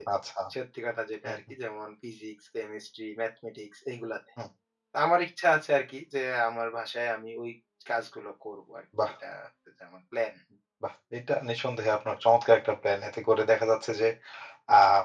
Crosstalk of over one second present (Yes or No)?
No